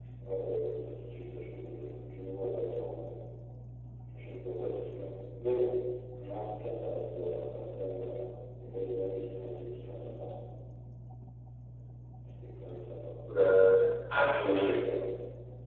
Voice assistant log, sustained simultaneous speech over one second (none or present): none